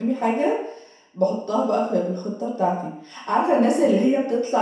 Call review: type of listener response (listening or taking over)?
listening